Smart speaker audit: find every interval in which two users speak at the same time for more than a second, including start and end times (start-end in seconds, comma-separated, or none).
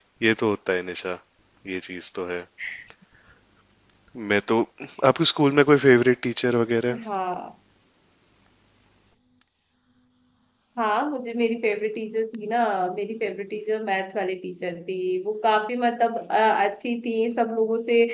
none